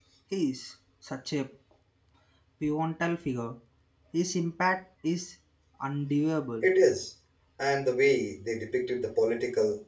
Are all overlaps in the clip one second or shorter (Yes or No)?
Yes